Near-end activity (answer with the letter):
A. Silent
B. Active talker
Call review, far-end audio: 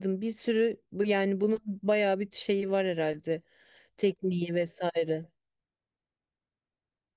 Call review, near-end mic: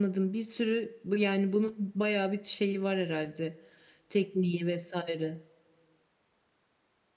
A